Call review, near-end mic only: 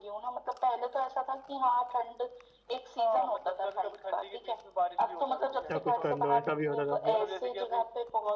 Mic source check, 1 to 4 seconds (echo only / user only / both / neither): echo only